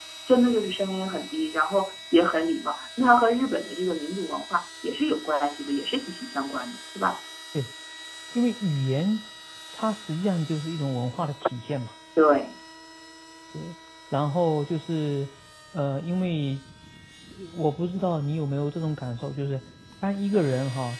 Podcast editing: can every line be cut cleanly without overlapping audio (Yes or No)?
Yes